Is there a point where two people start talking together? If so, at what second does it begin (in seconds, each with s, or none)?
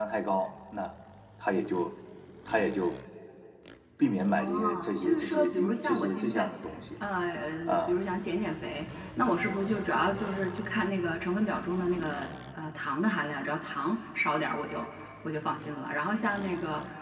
4.4 s